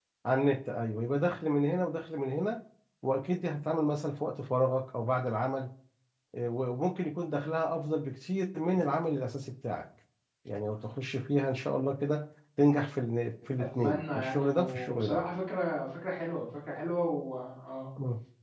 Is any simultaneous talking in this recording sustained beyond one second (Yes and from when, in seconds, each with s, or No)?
Yes, from 13.6 s